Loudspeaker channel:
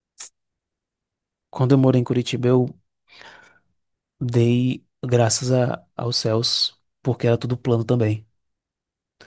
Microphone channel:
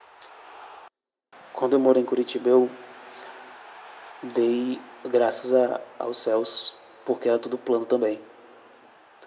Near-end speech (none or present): none